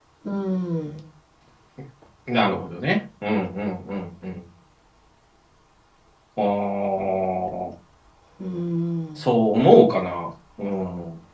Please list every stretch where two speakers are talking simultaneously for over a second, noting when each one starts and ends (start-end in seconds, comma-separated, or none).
none